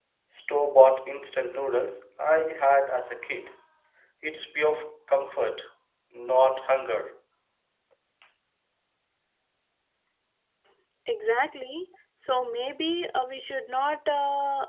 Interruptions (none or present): none